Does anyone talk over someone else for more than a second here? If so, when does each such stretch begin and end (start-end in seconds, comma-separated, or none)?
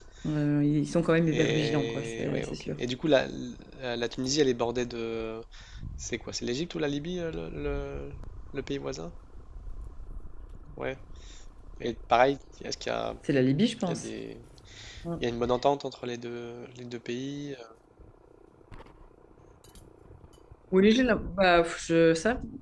1.3-2.8